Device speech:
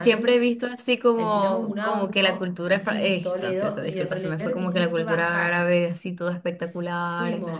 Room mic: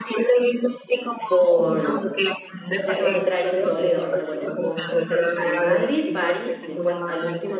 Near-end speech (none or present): present